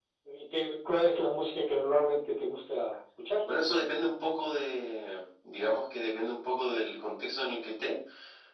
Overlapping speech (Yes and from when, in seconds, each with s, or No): No